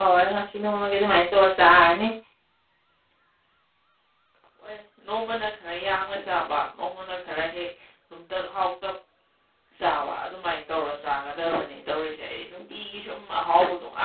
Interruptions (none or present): none